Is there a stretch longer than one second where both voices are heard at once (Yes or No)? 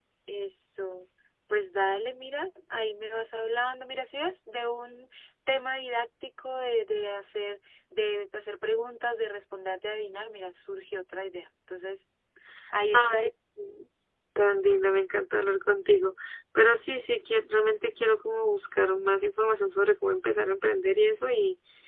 No